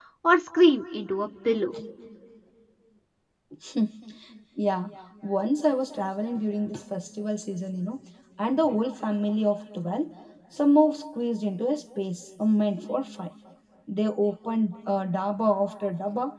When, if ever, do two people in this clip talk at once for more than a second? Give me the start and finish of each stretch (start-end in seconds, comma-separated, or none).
none